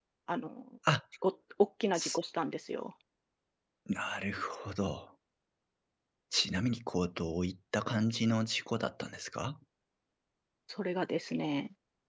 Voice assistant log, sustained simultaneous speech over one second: none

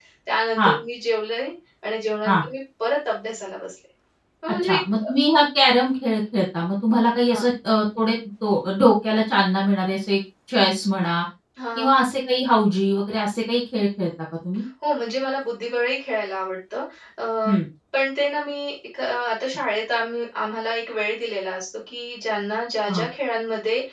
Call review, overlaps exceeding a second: none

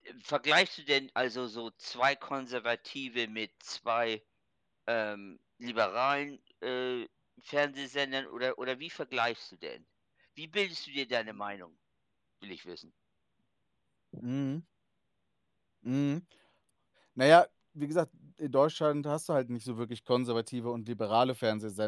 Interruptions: none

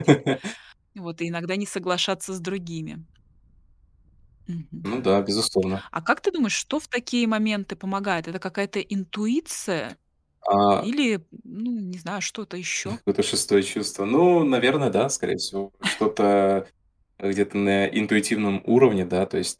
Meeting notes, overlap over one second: none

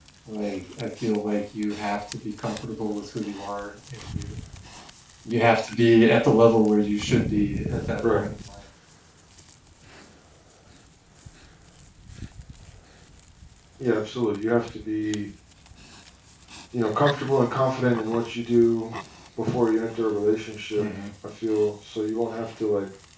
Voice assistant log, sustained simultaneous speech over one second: none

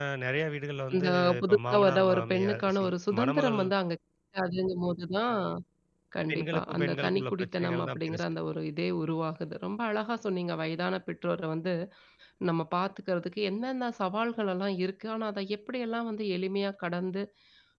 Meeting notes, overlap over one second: present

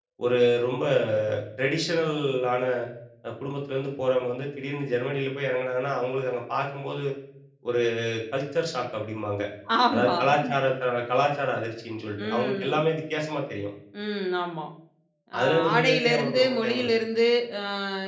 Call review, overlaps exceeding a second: present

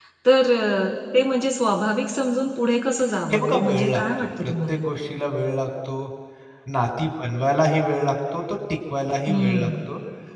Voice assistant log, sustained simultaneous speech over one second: present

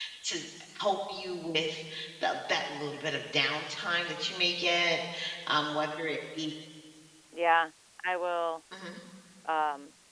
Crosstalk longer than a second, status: none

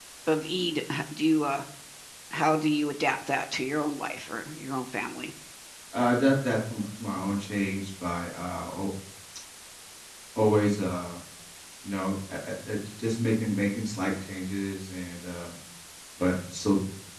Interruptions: none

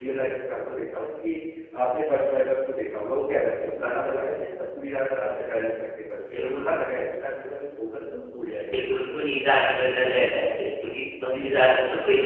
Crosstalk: present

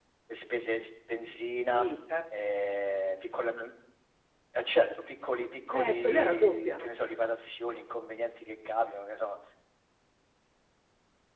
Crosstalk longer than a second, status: present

